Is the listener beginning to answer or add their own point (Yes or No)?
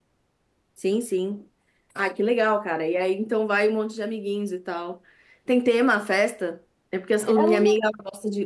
No